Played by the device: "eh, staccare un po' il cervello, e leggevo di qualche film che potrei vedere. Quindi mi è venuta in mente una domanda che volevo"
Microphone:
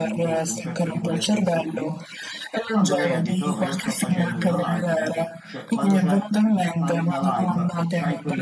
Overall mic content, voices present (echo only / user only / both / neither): both